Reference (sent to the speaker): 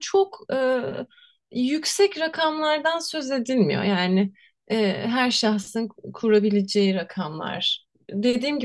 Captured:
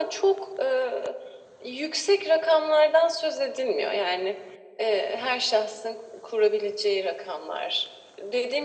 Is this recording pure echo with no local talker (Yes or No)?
Yes